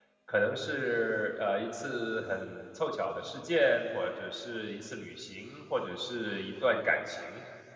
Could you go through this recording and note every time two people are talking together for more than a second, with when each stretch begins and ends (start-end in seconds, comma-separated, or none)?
none